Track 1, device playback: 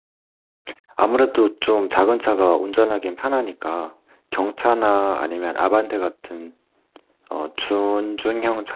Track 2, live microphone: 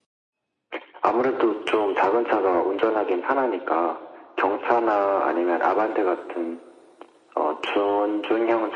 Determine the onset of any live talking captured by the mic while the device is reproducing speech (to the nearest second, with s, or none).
none